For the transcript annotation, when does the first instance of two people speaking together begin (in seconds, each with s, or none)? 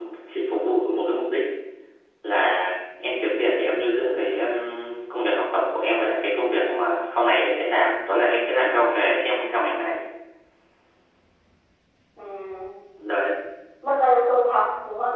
none